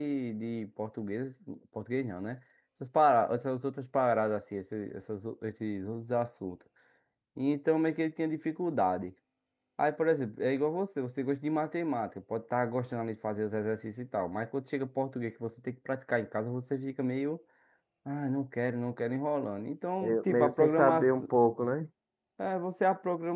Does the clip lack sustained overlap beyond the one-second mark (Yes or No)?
No